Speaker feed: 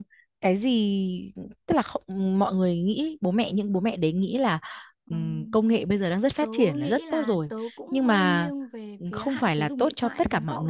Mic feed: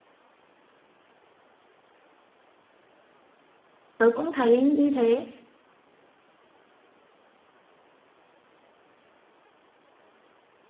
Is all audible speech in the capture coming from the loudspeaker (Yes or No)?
No